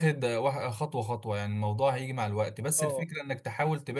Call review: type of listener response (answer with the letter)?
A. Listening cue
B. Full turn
A